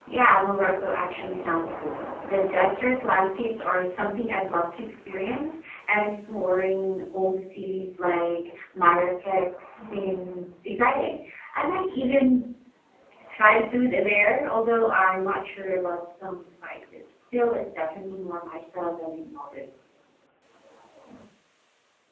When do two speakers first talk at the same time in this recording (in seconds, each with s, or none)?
none